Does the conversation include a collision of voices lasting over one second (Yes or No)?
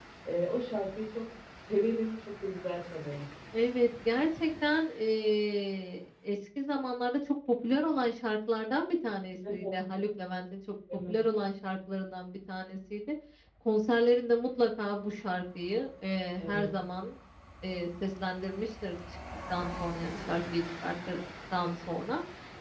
No